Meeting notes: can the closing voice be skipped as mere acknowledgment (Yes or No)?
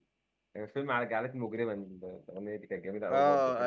No